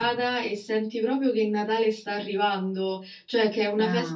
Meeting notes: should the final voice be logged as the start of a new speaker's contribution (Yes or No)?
No